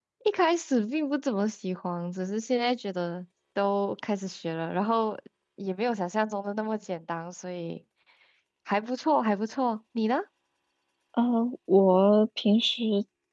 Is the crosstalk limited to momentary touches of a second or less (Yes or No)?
Yes